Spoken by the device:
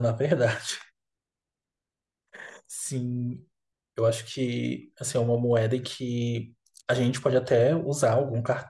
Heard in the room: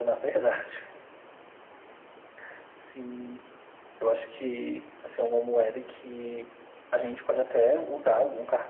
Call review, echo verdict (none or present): present